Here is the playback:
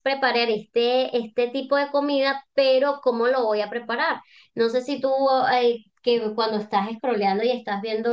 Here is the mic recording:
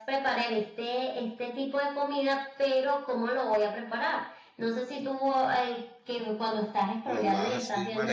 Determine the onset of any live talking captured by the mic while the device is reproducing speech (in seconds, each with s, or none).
7.0 s